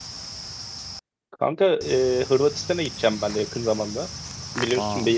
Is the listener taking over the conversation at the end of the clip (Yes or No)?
No